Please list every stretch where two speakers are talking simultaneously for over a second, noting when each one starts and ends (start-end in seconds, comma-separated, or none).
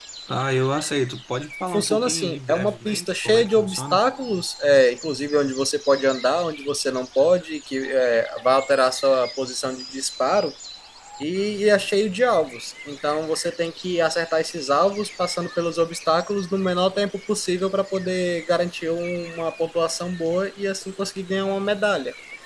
1.7-4.0